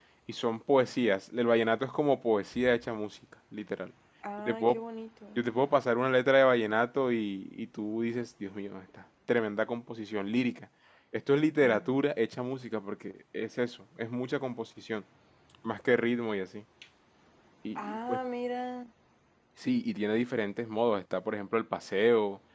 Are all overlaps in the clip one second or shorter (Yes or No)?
Yes